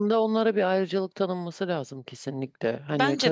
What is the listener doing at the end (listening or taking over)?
listening